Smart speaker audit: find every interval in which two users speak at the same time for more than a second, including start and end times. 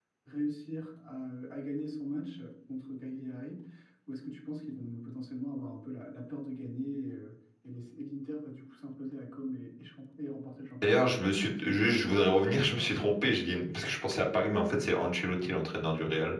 11.6-12.8

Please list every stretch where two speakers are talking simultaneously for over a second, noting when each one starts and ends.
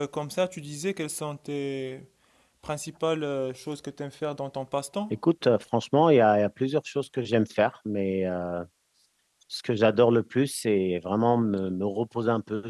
none

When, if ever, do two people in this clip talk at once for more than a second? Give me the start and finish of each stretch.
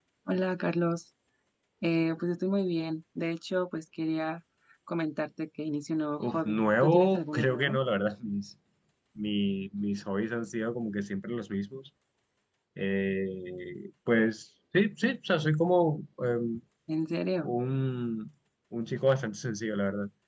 6.2-7.8

